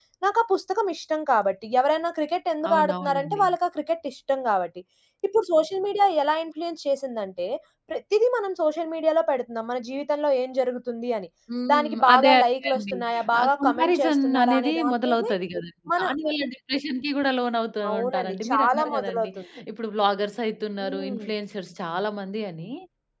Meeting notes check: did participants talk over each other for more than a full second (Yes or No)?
Yes